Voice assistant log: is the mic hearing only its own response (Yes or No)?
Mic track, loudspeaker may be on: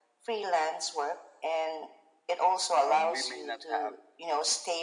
No